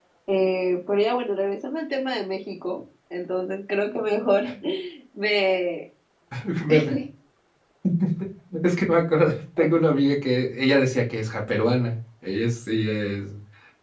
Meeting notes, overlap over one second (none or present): none